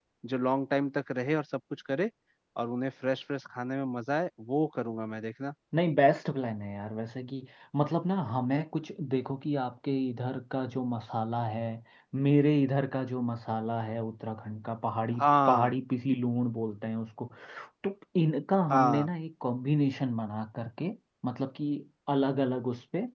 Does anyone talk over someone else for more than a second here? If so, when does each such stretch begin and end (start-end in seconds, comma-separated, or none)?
none